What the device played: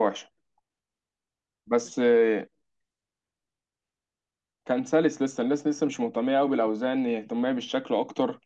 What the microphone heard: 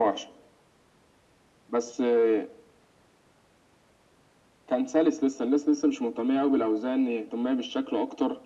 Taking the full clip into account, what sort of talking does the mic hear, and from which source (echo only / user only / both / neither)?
echo only